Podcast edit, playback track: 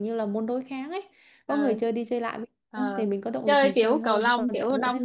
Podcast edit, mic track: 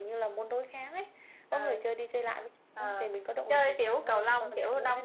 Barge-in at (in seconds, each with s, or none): none